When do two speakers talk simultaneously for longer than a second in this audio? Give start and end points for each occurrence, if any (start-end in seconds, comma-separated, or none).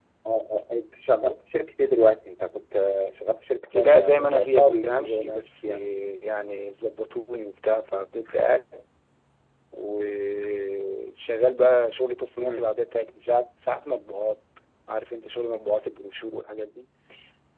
3.8-5.8